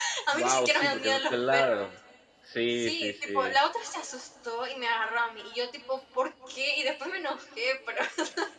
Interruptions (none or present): present